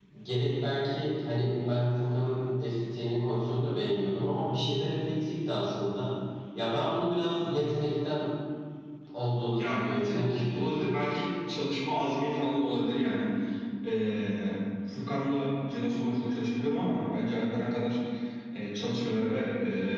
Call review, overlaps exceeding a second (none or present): present